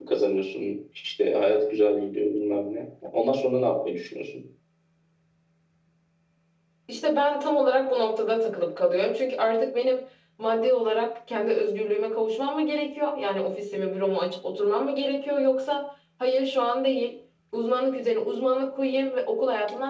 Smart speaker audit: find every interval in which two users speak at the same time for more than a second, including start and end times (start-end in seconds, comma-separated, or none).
none